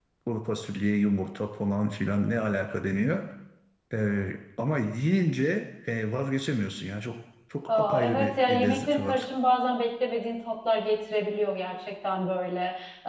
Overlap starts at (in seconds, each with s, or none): 7.7 s